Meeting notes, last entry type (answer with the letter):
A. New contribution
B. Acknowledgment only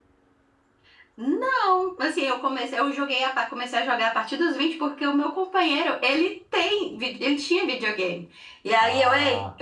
B